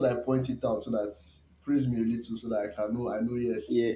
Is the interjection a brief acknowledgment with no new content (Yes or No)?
No